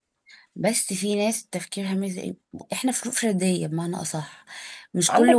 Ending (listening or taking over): listening